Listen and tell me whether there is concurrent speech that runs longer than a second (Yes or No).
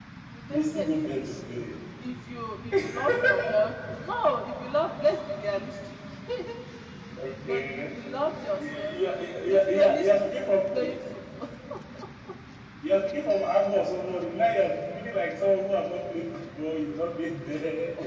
Yes